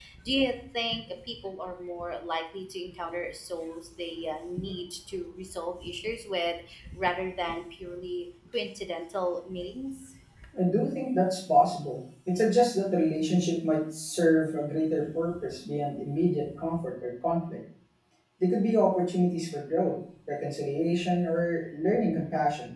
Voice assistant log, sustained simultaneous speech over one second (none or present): none